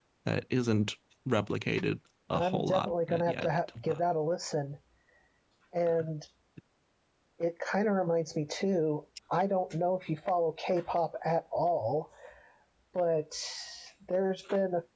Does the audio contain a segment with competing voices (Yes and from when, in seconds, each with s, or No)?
Yes, from 2.3 s